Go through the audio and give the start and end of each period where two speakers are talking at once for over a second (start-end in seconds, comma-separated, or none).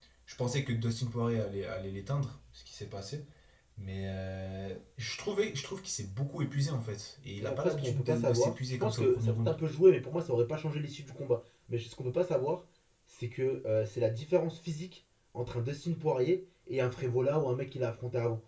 7.4-9.5